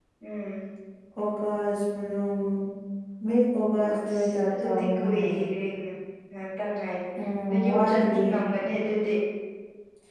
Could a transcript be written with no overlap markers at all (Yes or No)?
No